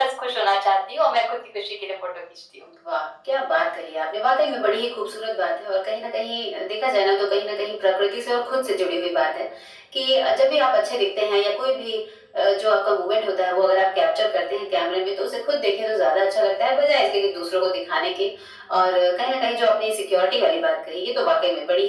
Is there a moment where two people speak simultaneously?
No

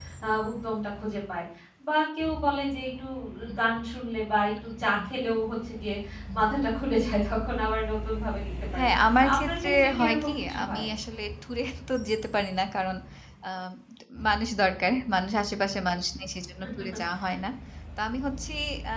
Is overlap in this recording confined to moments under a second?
No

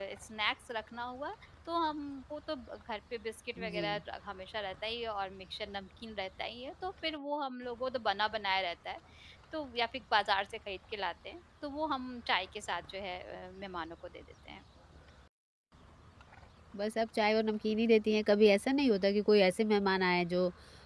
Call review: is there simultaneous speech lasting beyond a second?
No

